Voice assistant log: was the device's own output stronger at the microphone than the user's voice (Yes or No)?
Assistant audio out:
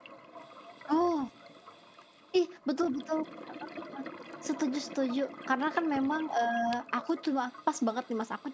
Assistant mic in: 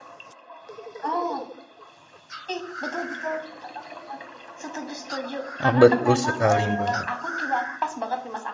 No